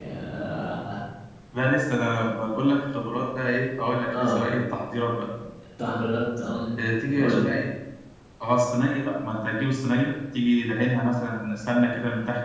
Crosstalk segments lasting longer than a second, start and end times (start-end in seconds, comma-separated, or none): none